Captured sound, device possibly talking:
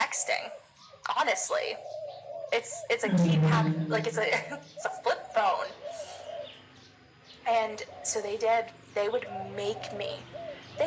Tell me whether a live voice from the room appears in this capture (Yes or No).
Yes